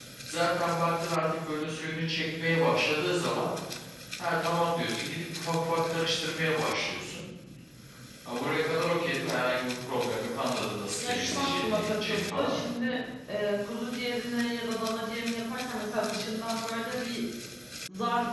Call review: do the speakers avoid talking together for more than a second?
No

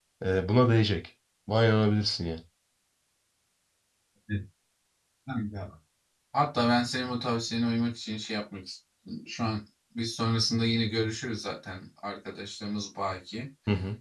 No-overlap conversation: Yes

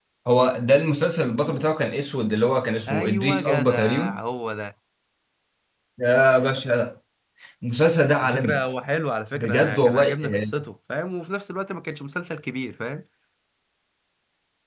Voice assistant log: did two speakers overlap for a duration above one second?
Yes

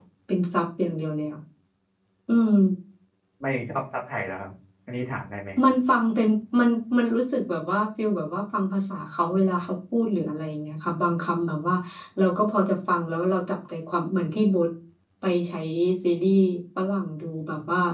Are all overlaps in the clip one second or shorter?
Yes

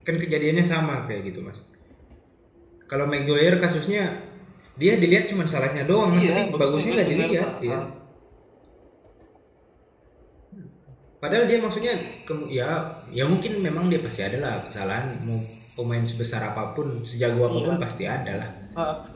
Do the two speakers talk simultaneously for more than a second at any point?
Yes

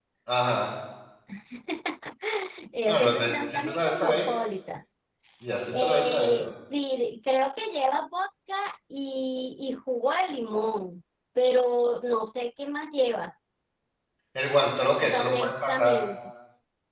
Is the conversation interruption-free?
No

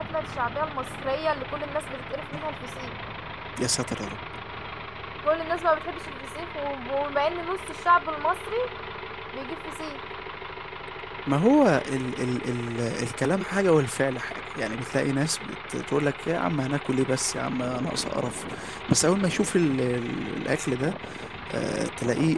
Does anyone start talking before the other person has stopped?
No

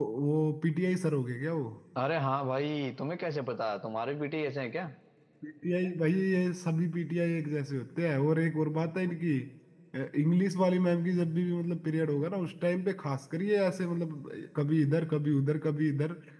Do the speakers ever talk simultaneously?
No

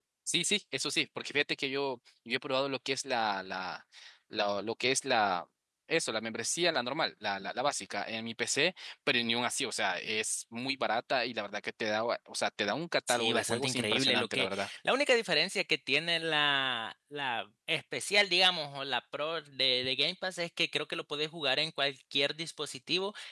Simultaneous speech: Yes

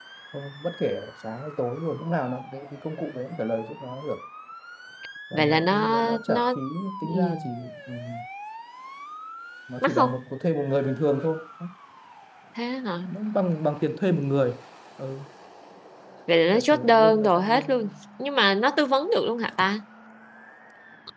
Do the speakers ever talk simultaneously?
Yes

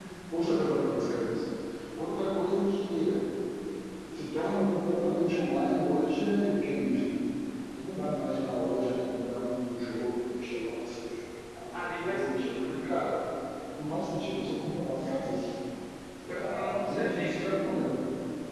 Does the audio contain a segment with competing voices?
Yes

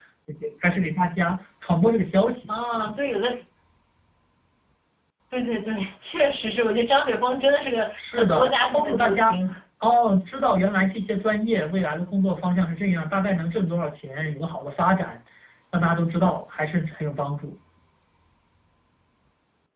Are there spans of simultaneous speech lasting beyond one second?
Yes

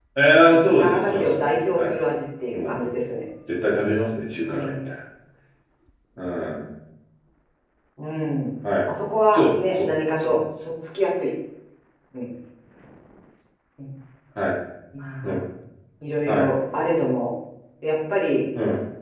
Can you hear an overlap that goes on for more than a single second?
Yes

